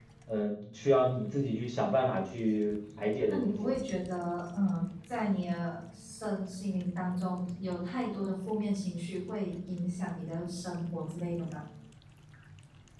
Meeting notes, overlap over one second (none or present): none